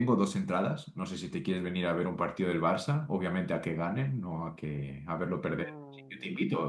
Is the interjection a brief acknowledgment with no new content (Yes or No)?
No